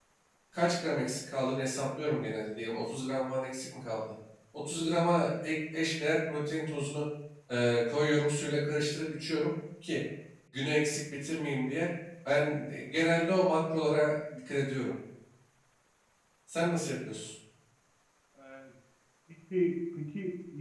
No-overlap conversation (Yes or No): Yes